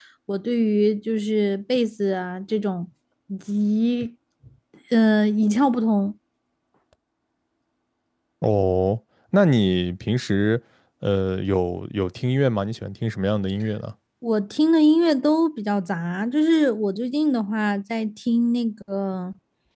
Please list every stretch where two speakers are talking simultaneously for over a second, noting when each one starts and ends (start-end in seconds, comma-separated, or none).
none